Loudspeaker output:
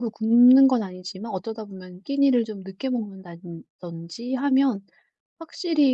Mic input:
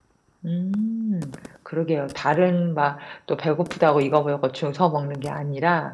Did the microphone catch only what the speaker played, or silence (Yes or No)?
No